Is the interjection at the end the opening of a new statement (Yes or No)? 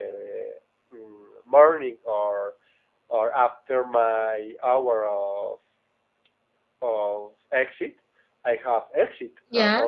No